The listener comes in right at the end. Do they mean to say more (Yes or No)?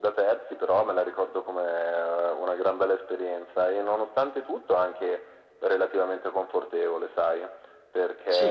No